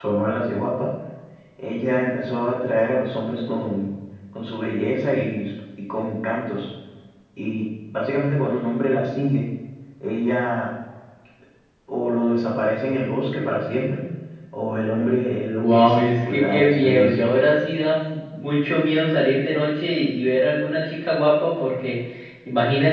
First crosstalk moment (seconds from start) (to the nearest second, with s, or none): 16 s